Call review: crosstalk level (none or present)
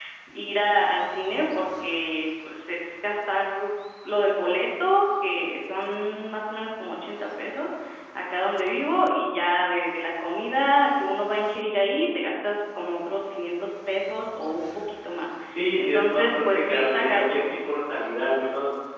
present